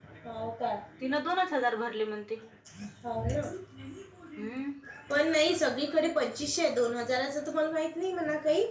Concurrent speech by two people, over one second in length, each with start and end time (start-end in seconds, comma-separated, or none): none